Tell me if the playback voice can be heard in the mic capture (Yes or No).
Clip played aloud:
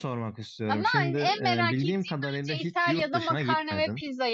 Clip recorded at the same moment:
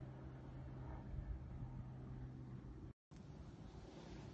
No